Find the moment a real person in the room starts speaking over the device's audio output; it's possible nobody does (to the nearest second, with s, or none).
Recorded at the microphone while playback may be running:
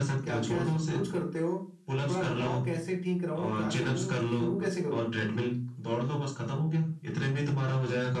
none